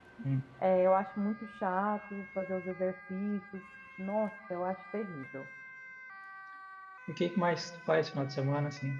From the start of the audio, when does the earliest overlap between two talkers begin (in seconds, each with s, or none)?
none